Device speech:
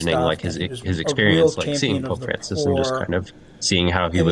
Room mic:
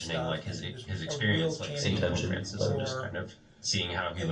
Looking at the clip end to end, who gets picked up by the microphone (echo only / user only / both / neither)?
both